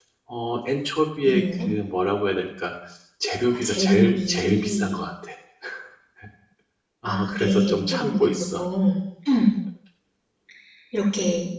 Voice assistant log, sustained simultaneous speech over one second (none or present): present